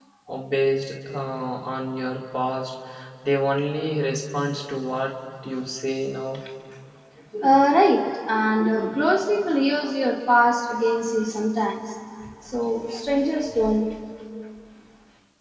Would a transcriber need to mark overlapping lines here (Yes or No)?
No